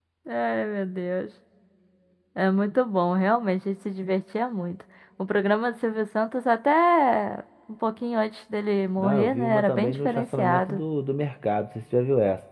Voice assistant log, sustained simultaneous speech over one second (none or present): present